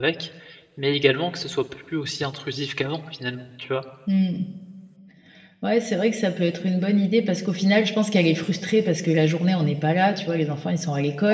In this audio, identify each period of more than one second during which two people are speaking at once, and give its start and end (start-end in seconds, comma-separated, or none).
none